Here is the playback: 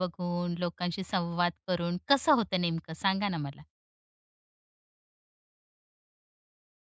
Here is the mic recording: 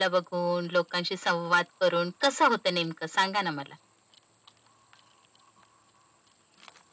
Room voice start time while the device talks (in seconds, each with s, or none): none